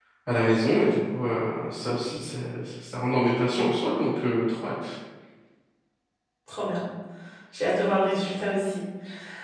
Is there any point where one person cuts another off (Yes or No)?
No